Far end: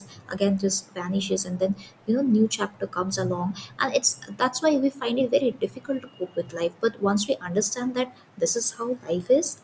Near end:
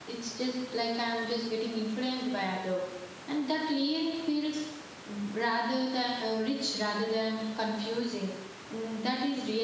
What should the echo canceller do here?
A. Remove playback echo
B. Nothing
B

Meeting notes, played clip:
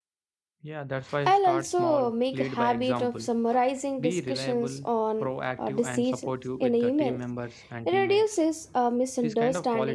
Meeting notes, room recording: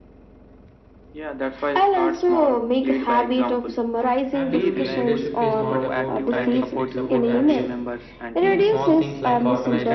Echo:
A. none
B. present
B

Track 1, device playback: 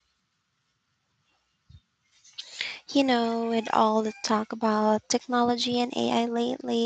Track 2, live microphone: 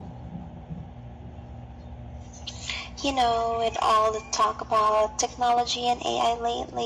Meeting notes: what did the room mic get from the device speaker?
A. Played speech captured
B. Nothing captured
A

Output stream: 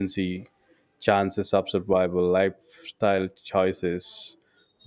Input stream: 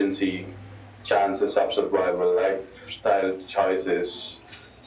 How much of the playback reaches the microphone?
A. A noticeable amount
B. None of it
A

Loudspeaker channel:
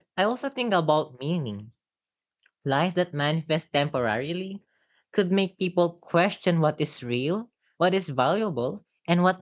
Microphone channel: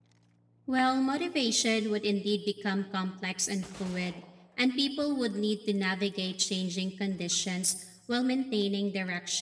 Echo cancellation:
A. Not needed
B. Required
A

